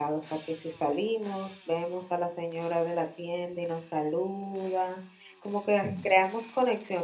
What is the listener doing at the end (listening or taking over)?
listening